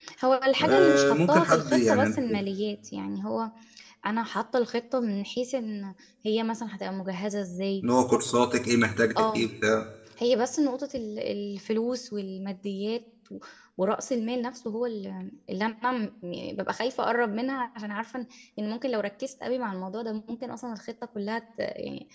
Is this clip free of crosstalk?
No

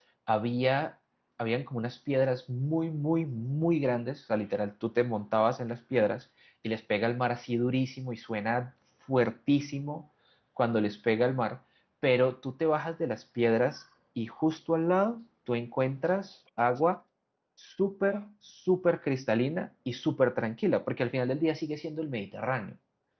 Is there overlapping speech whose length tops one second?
No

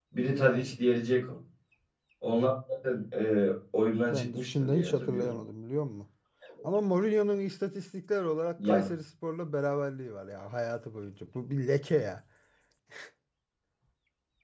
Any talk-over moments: Yes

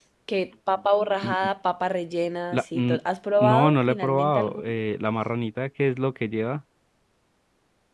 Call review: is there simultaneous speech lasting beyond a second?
Yes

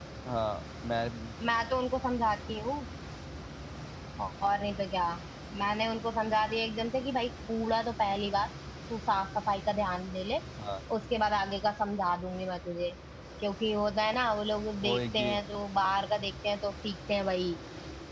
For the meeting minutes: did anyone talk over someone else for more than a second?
No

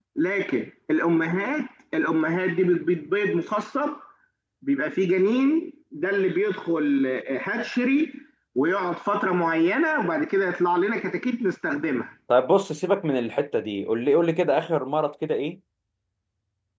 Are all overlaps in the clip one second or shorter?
Yes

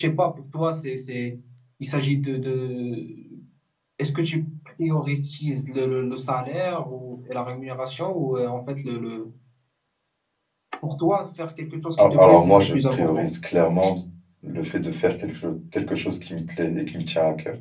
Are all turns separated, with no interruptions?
No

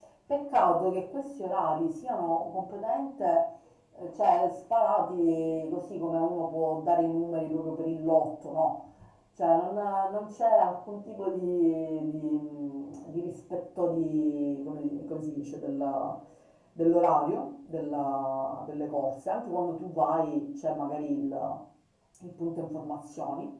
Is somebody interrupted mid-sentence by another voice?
No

